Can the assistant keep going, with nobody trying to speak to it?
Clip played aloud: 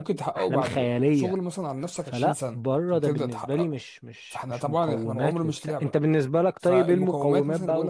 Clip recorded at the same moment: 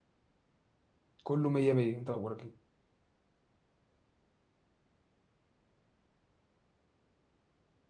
No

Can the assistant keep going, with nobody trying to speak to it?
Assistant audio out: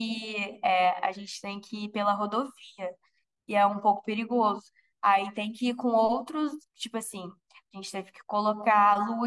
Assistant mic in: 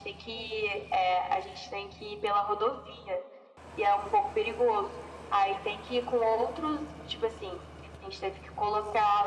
Yes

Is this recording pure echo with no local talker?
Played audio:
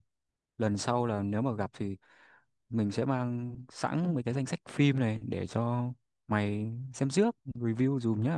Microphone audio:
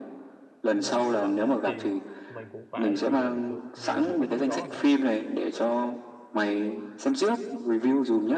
No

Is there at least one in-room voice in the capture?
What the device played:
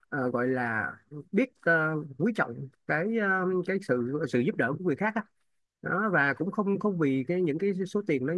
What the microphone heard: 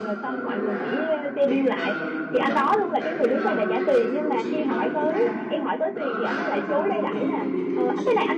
Yes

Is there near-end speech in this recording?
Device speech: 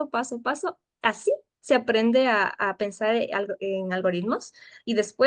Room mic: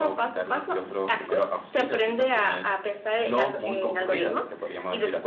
Yes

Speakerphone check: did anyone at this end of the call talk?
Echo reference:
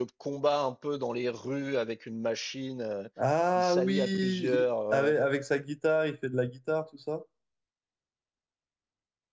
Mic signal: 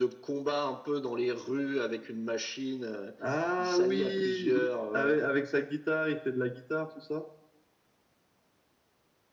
No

